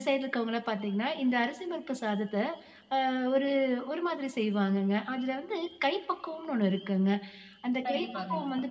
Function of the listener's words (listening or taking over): listening